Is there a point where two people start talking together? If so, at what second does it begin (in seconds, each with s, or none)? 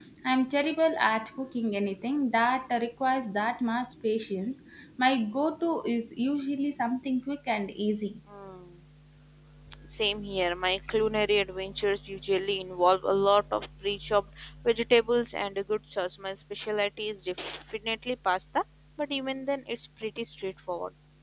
none